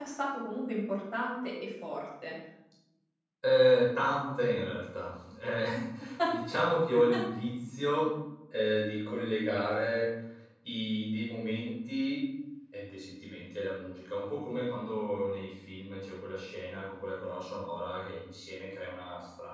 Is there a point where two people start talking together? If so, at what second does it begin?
none

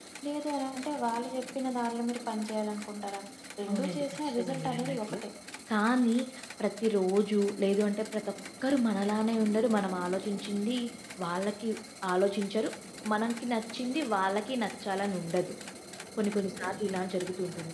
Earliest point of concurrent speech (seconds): 3.7 s

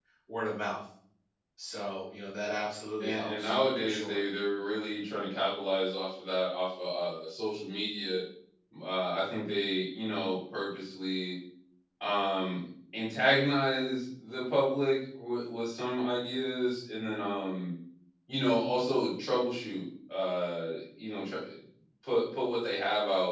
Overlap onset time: 3.0 s

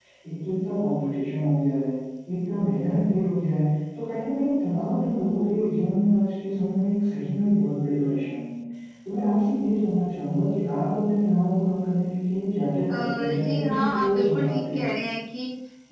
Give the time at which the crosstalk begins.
12.9 s

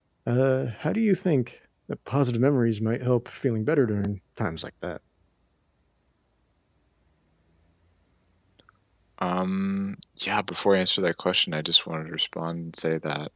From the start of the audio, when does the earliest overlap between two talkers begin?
none

